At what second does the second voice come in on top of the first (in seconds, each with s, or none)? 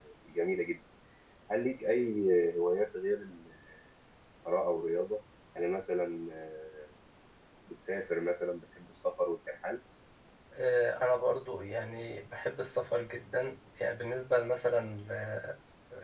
none